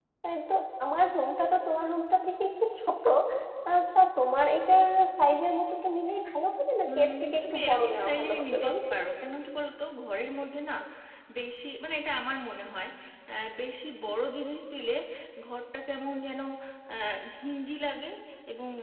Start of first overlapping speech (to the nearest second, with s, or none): 7 s